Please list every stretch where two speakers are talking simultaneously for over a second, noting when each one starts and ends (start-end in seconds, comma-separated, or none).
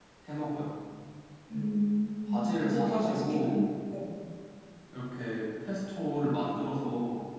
2.3-3.7